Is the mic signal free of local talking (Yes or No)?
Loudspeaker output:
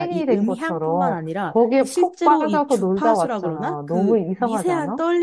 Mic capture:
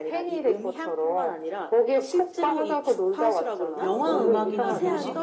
No